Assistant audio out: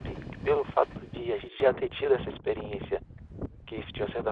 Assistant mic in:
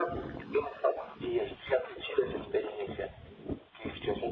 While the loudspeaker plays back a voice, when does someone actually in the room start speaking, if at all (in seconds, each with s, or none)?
none